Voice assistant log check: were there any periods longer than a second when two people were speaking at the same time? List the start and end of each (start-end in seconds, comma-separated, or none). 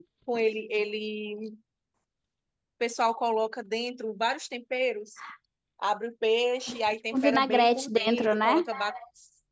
7.1-8.6